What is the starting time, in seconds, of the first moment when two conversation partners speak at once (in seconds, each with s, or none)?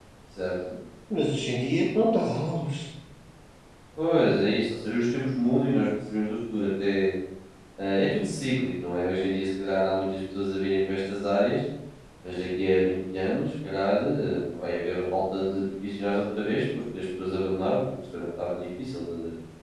none